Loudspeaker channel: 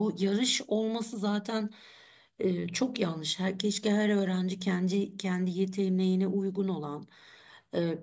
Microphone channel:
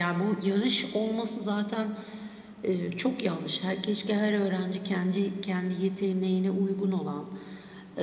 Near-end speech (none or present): none